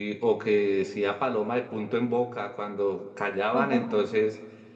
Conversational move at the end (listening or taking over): listening